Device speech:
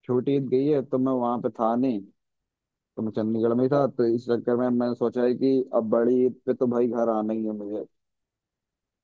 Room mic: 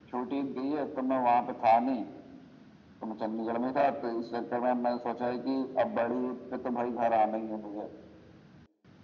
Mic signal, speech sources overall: echo only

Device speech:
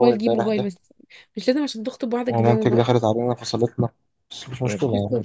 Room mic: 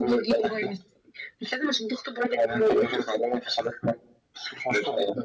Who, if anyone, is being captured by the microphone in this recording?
echo only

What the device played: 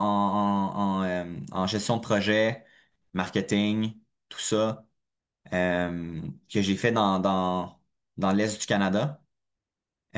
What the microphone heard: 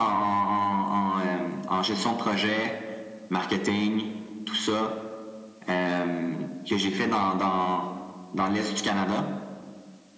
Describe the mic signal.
echo only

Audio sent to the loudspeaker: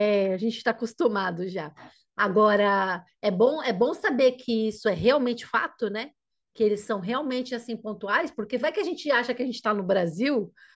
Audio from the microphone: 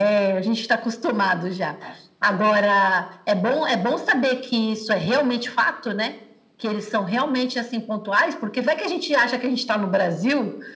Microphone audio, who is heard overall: echo only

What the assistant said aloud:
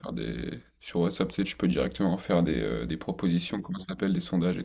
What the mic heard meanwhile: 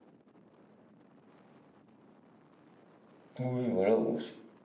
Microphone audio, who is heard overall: user only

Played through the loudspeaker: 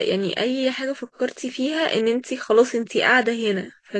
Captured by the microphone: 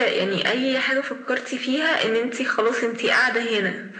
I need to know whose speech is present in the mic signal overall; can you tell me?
echo only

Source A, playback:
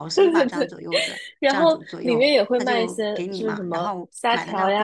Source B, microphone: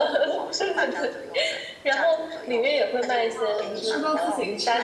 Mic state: both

